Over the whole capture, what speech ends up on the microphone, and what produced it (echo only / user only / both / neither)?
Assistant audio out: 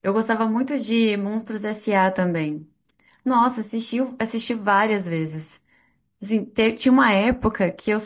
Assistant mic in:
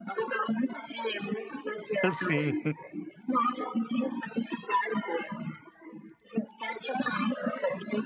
both